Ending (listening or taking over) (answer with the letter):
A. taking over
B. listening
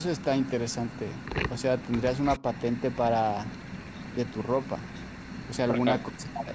B